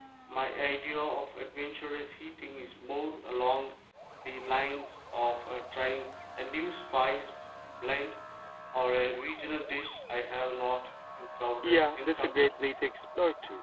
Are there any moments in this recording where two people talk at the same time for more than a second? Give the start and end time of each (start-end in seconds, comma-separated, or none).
11.6-12.9